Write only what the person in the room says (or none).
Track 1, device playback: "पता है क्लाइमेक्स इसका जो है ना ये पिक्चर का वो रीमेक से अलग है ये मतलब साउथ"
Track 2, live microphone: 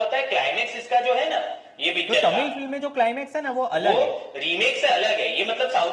तो तमिल फिल्म में जो क्लाइमेक्स है ना वो अलग है